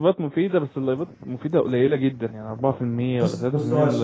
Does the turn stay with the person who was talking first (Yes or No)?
No